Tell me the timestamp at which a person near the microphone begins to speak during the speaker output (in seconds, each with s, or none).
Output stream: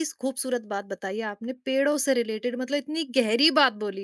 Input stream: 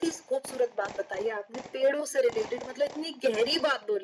none